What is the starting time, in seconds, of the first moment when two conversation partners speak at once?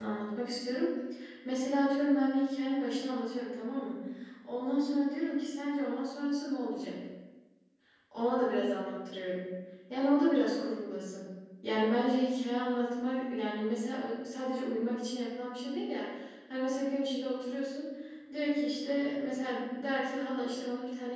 none

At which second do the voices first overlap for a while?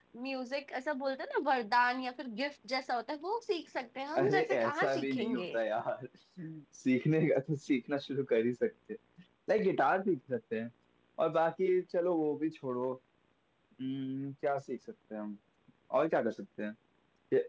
4.2 s

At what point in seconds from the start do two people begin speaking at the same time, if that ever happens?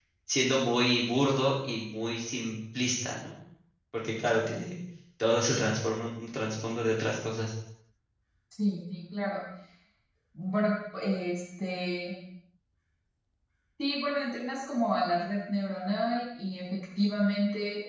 none

